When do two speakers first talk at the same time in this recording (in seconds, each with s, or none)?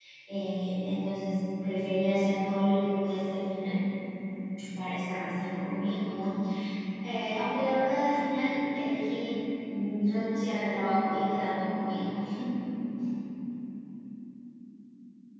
none